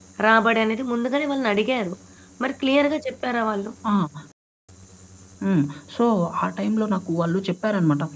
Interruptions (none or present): none